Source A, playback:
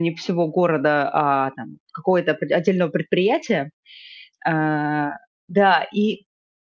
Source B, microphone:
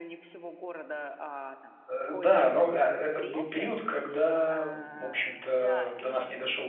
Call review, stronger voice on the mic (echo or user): user